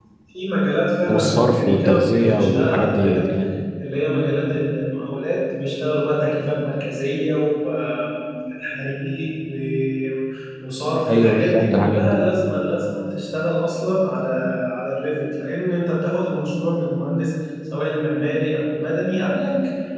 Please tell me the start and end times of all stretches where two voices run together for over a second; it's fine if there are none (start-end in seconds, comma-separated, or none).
1.1-3.2, 11.1-12.4